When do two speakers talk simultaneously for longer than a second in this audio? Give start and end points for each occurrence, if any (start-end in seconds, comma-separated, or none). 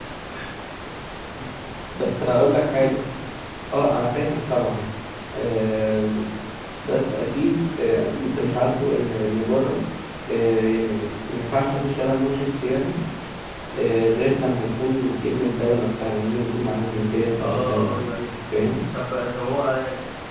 none